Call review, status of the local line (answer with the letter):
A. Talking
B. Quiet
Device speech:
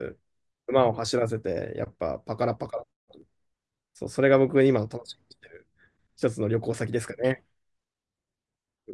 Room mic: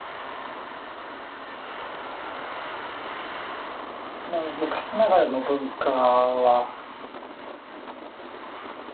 A